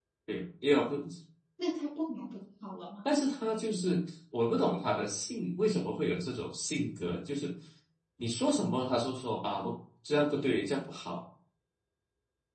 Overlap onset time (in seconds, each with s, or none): none